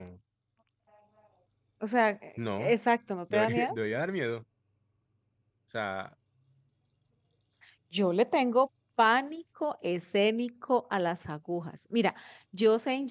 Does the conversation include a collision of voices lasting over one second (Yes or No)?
No